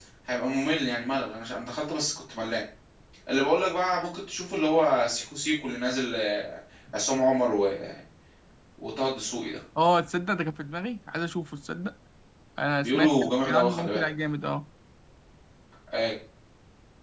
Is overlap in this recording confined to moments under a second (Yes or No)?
No